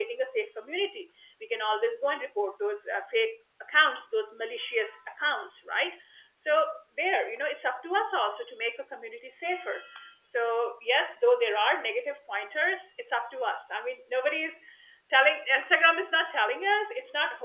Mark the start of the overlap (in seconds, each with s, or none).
none